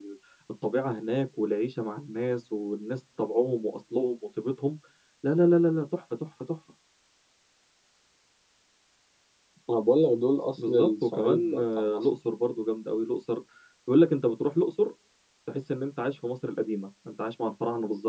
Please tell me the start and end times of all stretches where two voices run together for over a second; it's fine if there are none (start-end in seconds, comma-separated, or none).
10.7-12.0